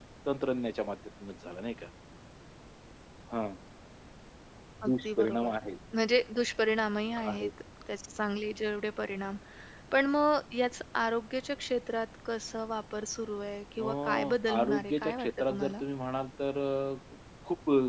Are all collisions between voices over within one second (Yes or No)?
No